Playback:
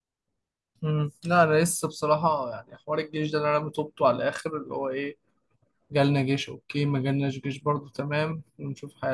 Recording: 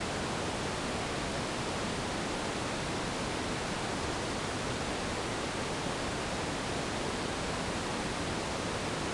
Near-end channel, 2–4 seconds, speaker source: neither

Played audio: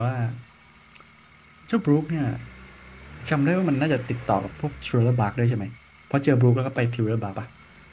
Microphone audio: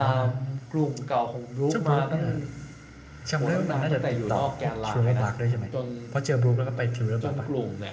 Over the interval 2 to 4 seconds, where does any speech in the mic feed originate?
both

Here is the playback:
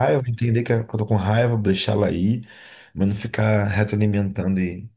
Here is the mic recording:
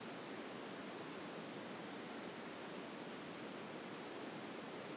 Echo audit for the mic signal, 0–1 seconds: neither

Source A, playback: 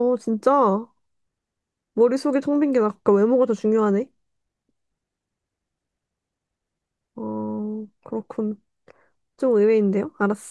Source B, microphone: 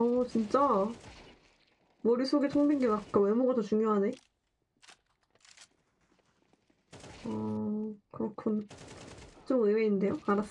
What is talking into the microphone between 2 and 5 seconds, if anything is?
echo only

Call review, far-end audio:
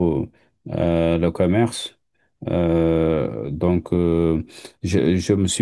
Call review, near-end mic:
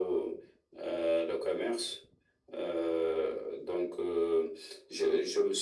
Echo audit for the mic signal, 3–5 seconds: echo only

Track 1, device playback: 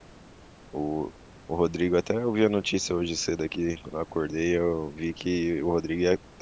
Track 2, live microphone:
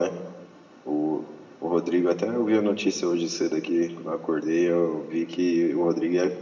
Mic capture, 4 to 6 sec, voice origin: echo only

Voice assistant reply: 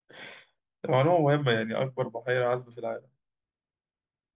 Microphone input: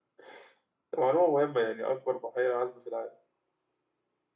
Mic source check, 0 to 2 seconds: echo only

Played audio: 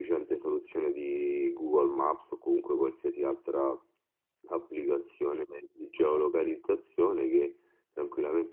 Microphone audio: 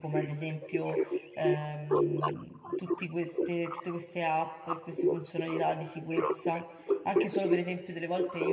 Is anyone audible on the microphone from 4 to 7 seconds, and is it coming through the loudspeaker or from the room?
both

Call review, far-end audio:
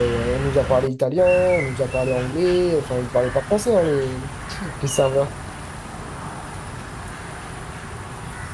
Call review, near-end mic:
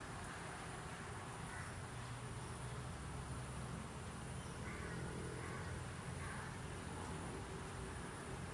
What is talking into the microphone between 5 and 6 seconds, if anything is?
neither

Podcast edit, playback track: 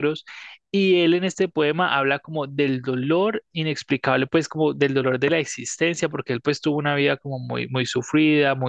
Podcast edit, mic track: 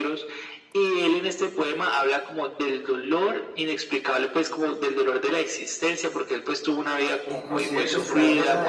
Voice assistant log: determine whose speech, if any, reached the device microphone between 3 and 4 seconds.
echo only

